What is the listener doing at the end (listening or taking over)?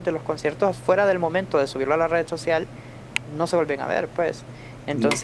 listening